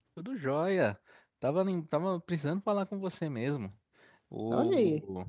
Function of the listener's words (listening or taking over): listening